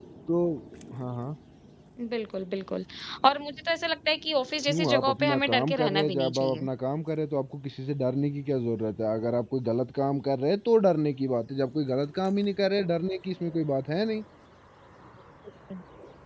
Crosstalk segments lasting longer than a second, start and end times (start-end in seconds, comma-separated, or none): 4.7-6.6